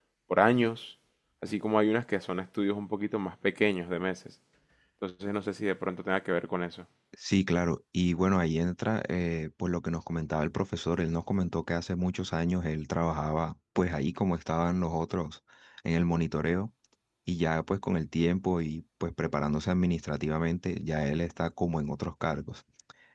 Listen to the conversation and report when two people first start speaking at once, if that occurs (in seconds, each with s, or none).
none